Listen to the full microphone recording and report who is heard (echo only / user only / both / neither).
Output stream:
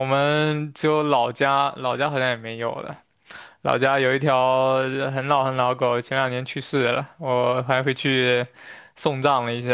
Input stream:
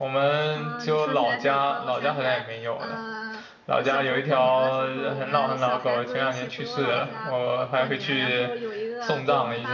both